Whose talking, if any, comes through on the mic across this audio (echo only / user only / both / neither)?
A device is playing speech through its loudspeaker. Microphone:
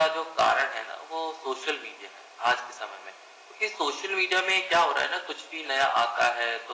echo only